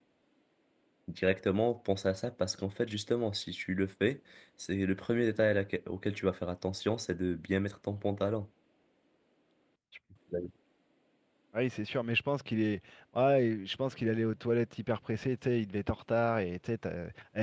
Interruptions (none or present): none